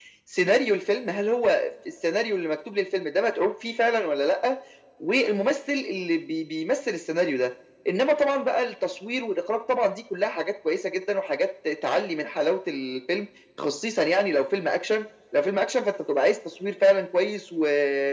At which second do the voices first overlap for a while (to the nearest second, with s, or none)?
none